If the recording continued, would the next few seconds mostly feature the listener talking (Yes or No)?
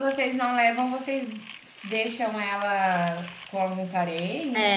Yes